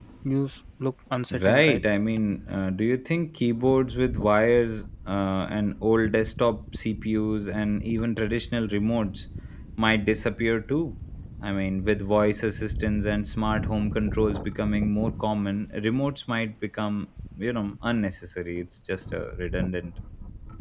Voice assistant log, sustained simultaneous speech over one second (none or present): none